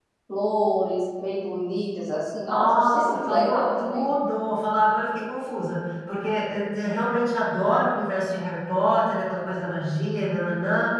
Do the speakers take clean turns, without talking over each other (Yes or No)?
No